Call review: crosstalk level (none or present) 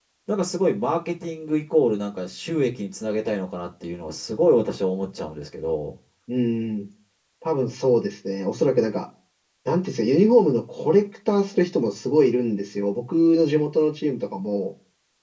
none